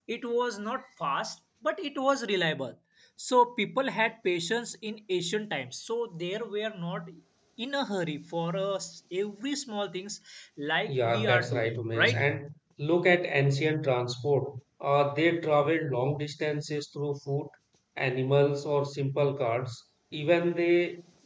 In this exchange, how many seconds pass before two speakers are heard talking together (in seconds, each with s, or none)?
11.0 s